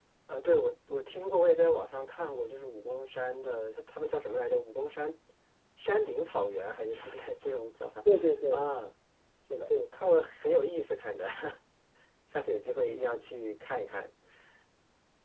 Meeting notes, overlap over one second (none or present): none